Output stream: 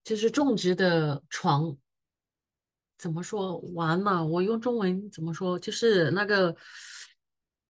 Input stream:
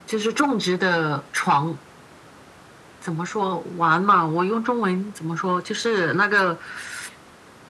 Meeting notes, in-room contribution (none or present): none